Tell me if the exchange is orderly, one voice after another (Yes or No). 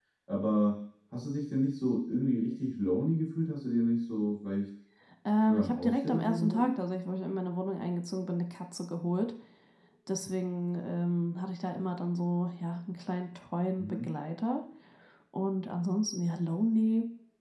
No